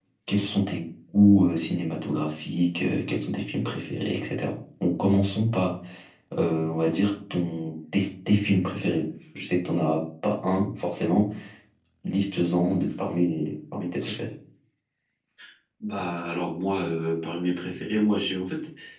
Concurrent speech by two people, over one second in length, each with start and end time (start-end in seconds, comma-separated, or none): none